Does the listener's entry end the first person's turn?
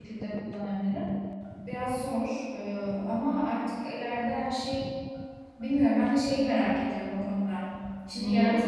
No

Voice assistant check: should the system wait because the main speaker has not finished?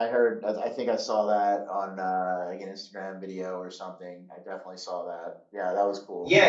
No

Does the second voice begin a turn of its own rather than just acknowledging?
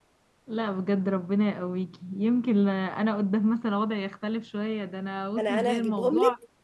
Yes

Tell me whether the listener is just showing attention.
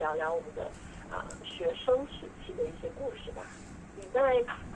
Yes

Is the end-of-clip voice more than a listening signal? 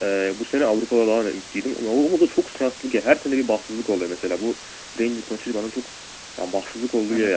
No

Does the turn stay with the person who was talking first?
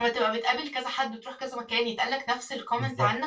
No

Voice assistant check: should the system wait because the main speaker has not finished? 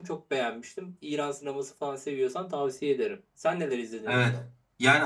No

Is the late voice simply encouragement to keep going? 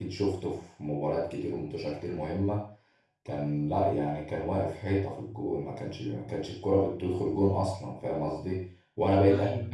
Yes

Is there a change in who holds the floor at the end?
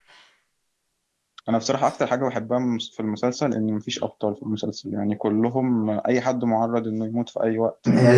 Yes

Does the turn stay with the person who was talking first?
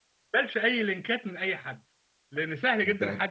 Yes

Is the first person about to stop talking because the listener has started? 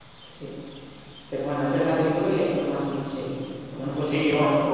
Yes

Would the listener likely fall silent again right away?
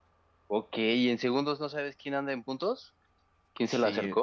No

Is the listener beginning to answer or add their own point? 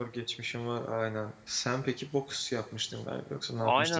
Yes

